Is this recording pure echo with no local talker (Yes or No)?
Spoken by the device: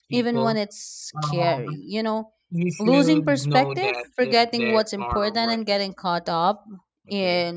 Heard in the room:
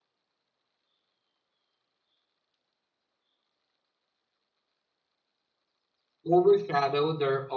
No